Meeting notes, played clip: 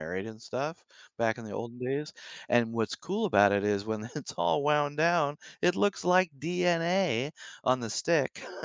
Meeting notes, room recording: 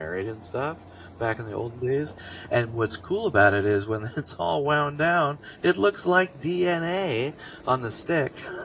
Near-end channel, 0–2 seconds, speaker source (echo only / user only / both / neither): echo only